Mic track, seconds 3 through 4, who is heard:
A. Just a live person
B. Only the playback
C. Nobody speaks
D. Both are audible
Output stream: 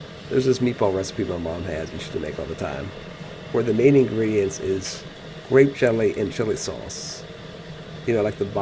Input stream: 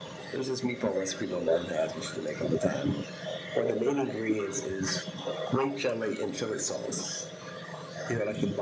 B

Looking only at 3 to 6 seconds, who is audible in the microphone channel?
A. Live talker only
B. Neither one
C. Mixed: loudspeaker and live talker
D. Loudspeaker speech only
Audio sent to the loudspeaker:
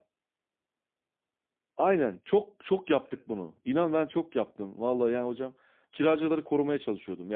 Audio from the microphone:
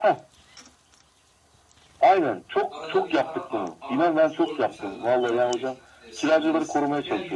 C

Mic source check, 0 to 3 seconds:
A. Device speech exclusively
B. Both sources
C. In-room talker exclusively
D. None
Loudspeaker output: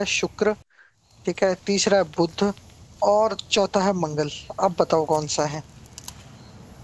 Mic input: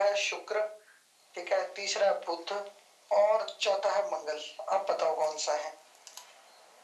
A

